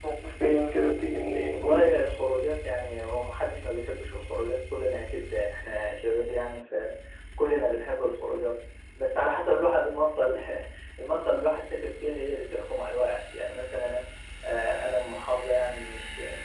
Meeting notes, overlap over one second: none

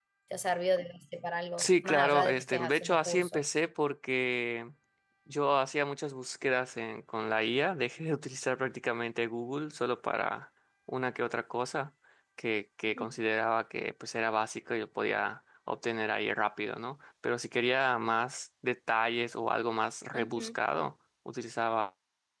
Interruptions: present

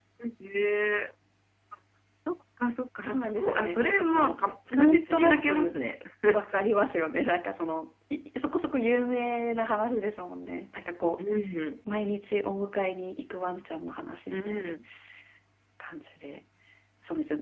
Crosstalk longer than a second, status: present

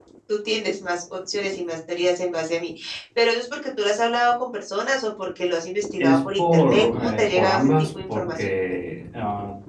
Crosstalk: present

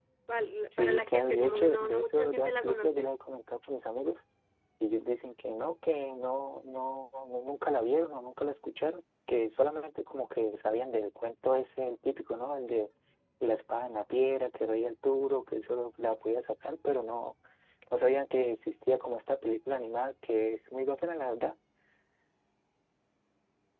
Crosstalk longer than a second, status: present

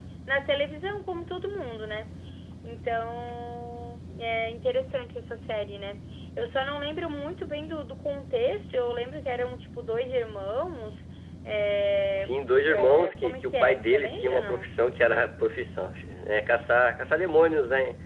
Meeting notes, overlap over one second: present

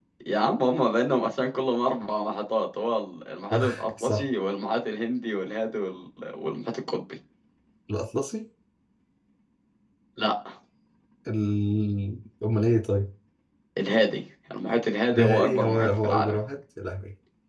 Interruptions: present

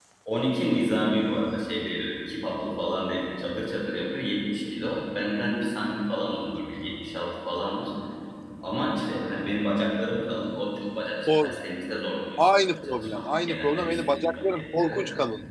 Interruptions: present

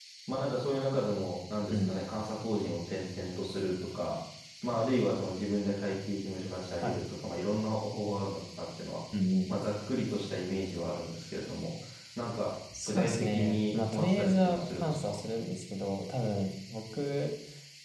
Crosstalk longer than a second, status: present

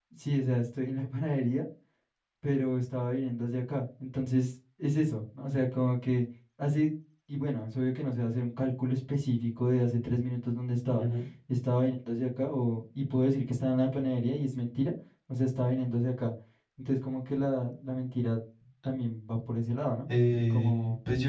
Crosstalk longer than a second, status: none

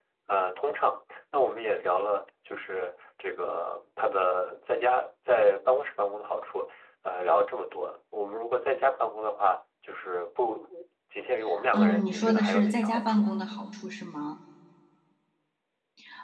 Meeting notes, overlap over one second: present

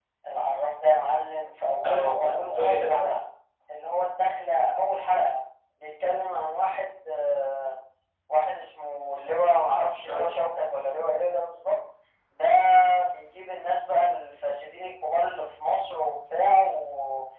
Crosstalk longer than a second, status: present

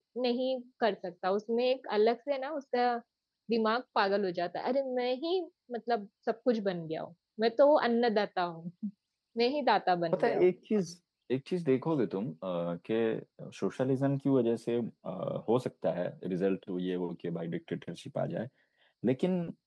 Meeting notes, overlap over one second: none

